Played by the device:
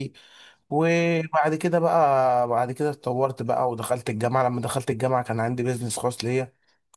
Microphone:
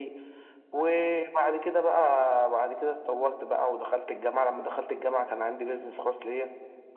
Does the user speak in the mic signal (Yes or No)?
No